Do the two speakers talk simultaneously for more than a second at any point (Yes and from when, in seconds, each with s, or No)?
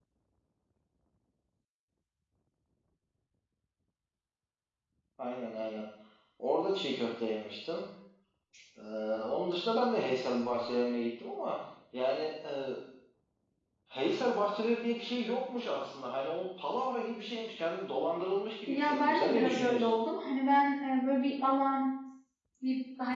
Yes, from 18.7 s